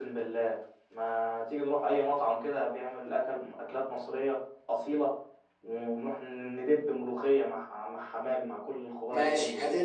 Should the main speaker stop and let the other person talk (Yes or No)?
Yes